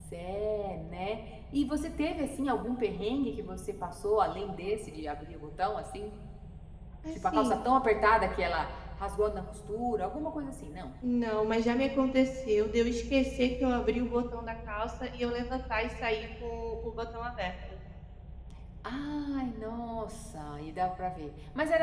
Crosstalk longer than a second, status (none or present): none